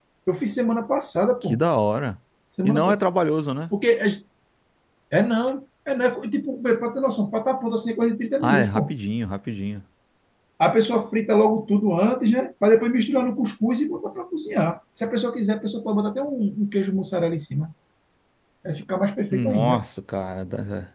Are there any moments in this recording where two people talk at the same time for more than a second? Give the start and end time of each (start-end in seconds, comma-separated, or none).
none